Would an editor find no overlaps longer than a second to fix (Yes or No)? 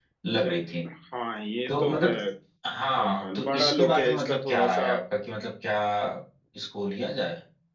No